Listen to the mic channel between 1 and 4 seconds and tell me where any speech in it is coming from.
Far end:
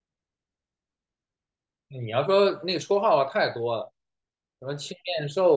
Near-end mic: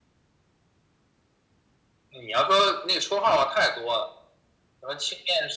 echo only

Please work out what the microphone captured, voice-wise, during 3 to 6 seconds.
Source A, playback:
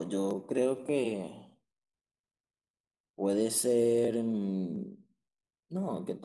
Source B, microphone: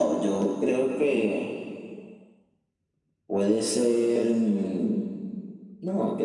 echo only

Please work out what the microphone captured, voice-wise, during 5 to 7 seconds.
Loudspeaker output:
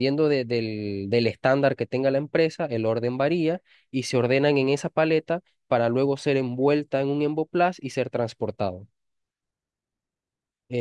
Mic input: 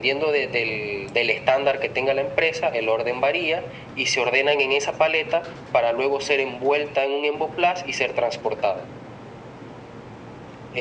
echo only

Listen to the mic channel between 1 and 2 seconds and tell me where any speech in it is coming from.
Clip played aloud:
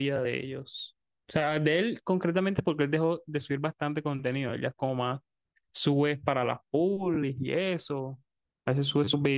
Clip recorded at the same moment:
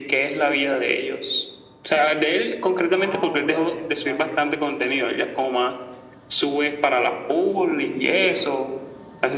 echo only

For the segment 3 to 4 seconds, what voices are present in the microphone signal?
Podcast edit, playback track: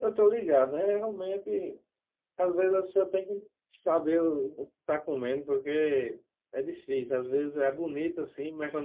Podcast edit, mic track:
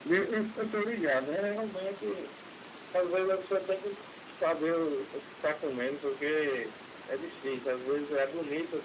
echo only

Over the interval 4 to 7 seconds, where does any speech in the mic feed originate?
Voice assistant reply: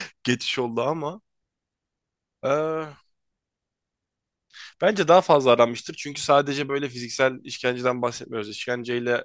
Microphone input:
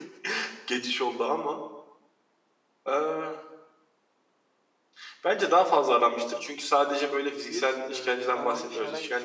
echo only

